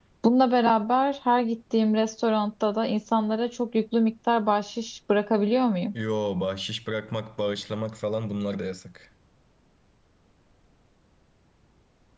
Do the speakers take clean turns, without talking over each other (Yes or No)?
Yes